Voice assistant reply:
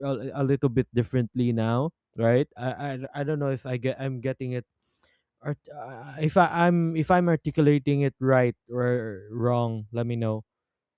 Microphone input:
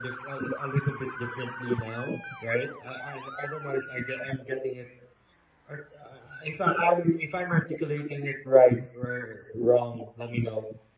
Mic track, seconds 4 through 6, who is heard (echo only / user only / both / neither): echo only